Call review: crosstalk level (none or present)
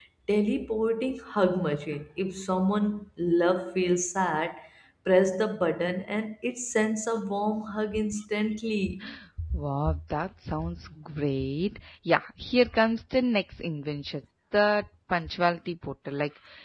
none